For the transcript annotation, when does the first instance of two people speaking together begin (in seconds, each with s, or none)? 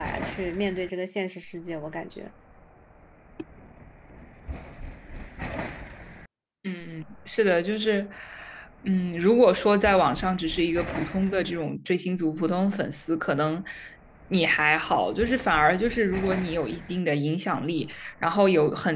none